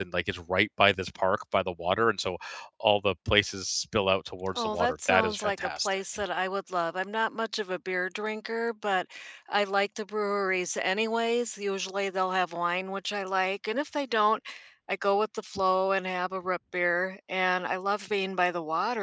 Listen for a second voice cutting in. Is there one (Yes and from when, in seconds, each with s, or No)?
Yes, from 4.5 s